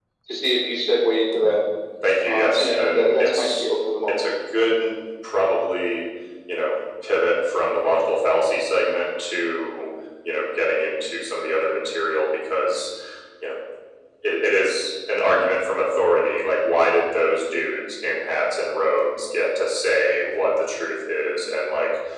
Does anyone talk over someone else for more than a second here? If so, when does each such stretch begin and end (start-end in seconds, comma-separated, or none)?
2.3-3.6